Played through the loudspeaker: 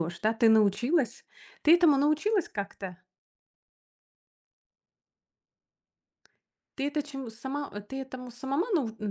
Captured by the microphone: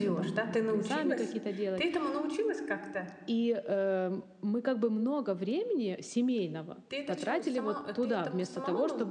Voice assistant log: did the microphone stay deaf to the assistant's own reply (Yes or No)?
No